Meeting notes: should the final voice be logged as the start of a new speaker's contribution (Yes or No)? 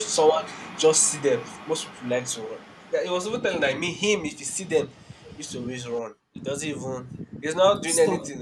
No